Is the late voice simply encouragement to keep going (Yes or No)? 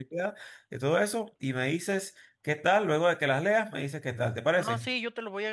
No